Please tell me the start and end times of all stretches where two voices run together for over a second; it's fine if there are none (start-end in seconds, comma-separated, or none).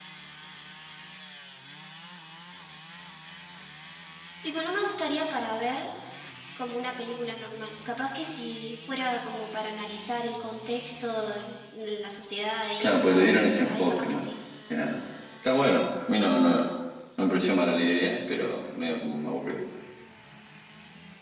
12.8-14.2